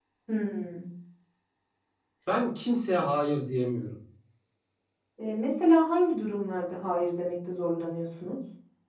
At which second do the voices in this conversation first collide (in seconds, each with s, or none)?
none